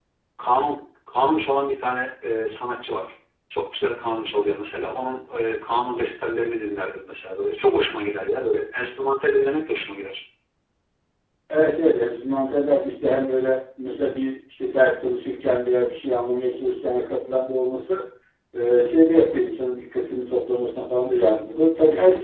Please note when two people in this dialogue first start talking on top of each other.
none

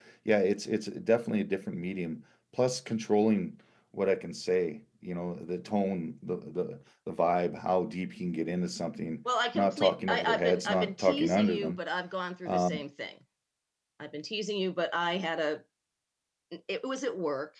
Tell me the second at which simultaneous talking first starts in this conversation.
10 s

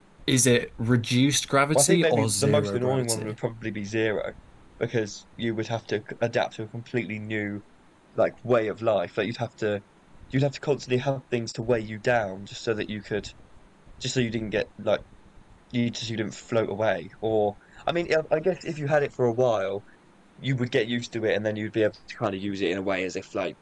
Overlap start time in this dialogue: 2 s

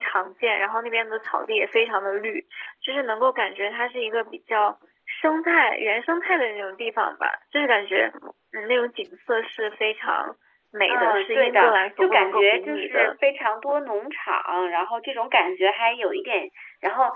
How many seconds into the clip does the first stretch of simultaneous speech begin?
11 s

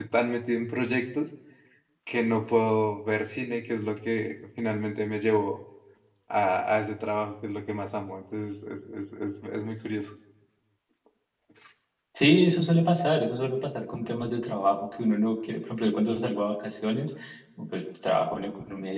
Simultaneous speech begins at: none

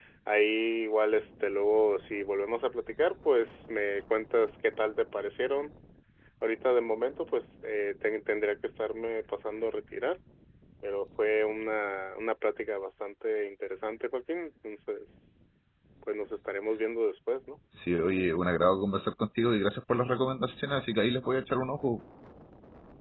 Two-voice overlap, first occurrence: none

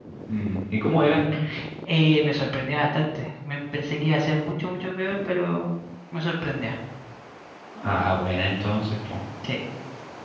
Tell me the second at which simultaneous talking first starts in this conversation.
none

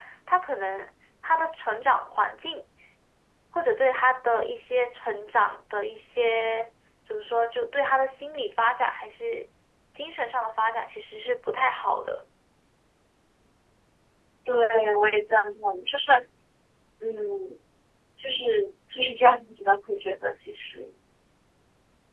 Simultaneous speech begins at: none

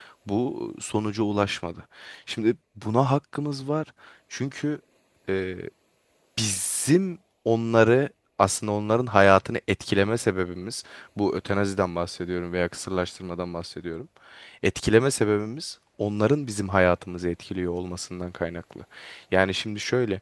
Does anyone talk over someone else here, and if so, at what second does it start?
none

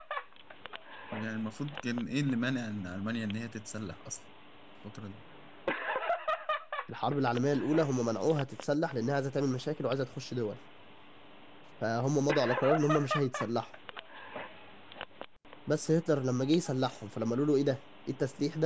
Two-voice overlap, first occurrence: none

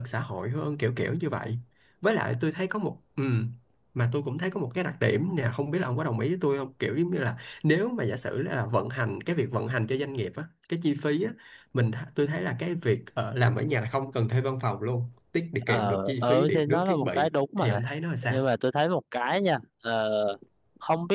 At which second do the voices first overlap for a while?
16 s

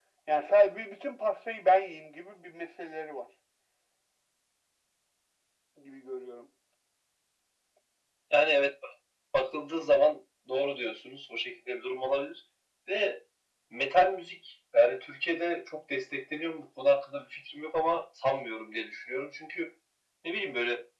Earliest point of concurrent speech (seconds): none

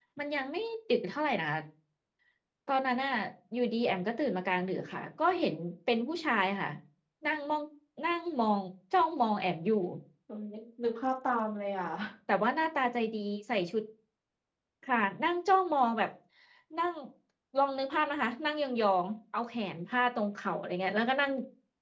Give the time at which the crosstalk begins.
none

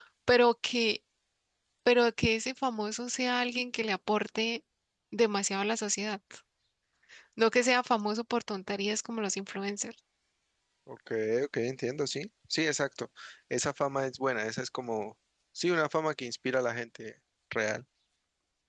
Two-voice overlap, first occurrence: none

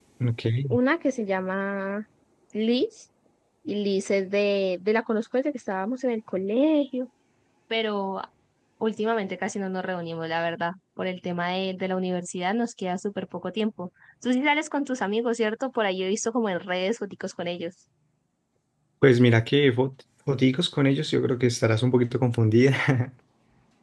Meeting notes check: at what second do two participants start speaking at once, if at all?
none

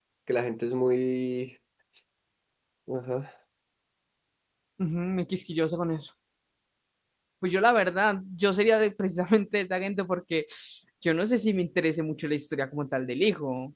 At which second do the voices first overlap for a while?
none

